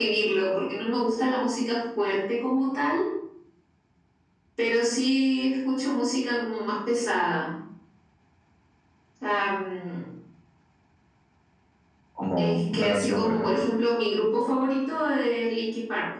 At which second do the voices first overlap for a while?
12.4 s

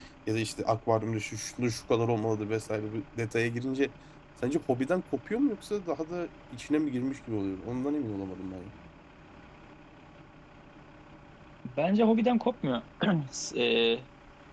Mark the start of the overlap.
none

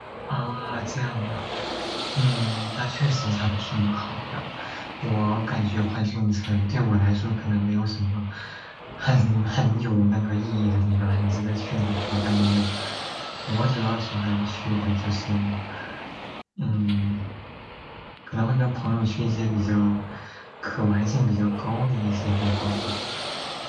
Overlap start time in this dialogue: none

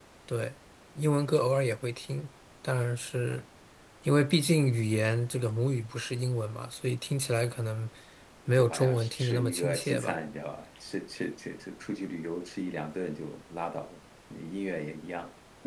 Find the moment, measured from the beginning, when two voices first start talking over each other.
8.6 s

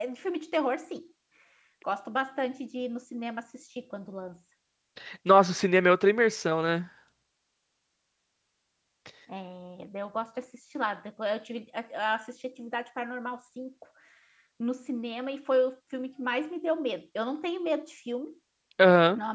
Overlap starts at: none

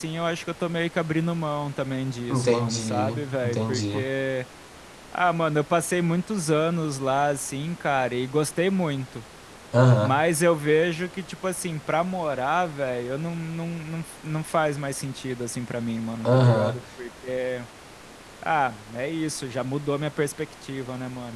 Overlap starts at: 2.3 s

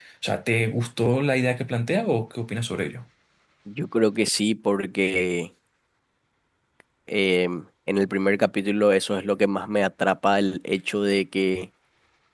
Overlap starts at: none

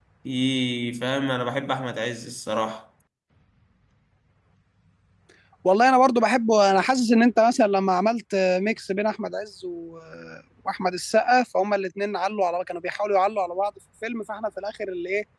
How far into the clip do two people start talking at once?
none

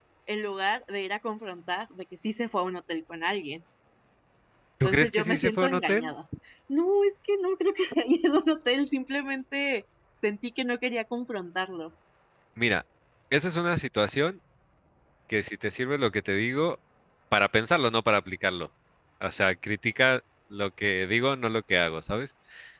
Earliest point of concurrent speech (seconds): 4.8 s

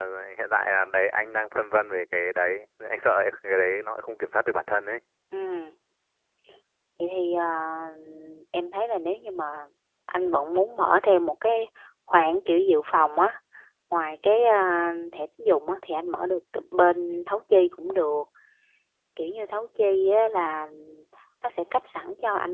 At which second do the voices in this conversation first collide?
none

